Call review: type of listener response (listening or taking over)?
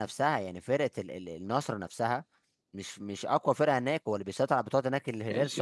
taking over